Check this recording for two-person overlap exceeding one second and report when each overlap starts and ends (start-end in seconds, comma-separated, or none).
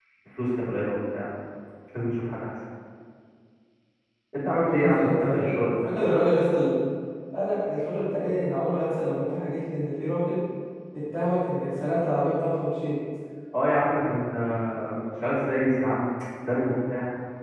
4.7-5.9